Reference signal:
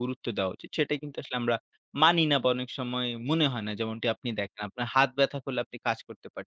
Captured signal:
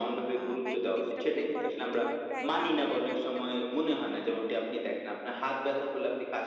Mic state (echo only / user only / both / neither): both